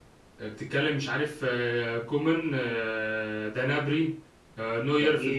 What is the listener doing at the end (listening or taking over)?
listening